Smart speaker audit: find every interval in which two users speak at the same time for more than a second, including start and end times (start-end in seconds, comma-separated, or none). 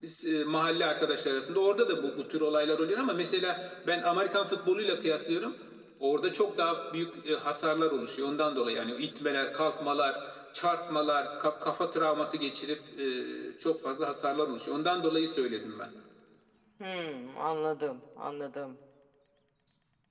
none